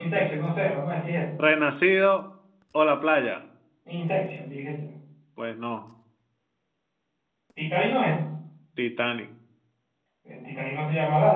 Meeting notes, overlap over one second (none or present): none